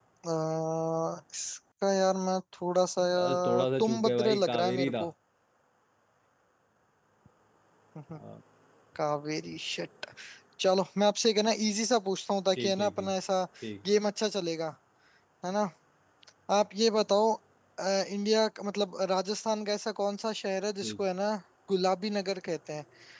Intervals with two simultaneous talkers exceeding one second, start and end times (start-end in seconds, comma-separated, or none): 3.1-5.0